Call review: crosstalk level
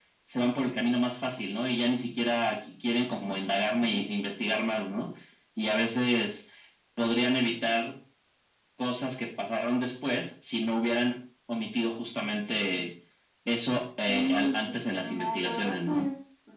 present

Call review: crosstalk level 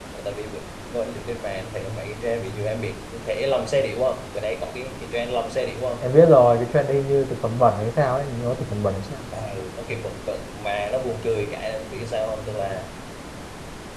none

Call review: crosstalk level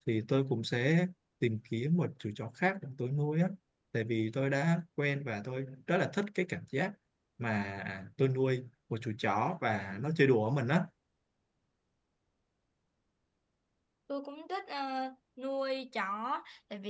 none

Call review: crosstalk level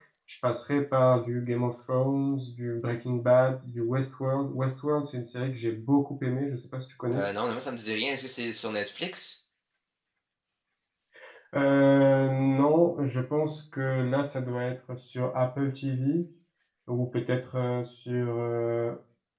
none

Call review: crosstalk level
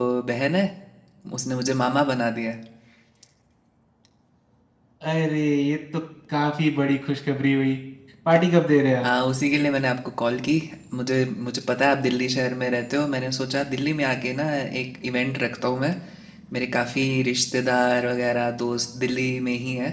none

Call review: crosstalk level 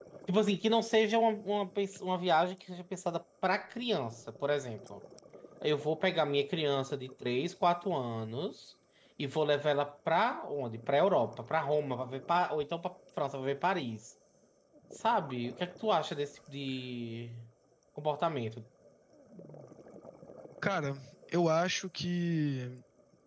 none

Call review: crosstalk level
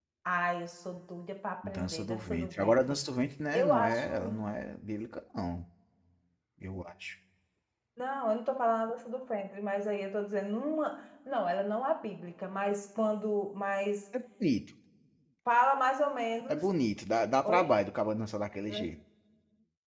present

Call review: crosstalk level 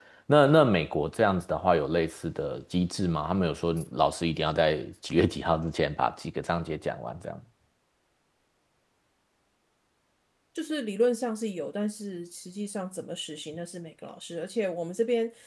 none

